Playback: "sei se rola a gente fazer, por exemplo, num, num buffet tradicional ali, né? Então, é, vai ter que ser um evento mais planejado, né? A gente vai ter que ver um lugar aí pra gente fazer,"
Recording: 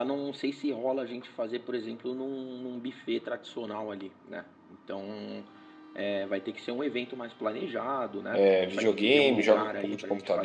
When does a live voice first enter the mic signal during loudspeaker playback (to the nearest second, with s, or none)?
8 s